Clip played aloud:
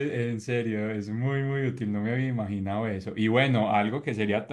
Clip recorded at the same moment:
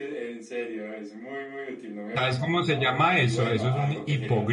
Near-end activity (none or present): present